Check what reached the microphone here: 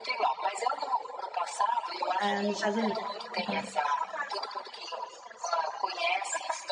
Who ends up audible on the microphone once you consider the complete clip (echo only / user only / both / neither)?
both